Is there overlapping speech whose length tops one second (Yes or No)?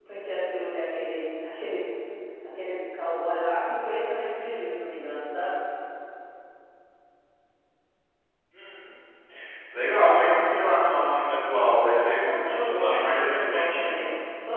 Yes